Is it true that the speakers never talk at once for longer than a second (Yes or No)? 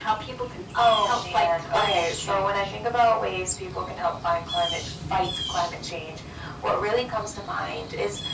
No